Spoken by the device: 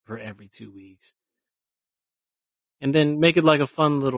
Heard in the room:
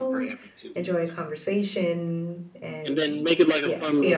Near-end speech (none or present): present